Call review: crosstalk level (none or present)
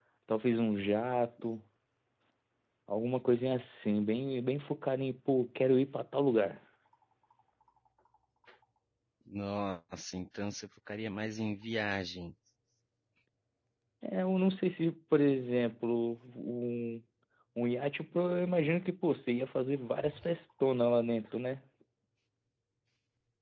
none